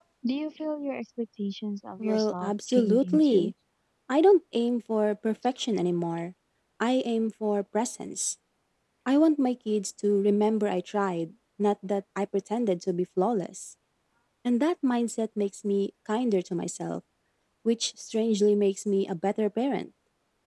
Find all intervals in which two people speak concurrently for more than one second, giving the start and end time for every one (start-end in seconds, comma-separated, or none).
2.0-3.5